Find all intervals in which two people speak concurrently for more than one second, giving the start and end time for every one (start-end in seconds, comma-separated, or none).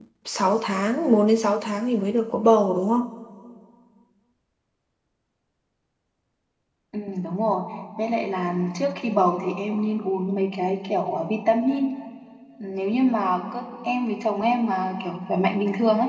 none